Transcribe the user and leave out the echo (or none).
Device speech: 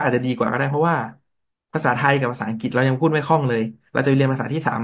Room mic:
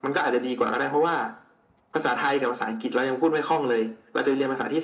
none